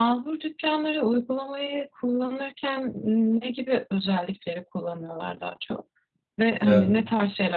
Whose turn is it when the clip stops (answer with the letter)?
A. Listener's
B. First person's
B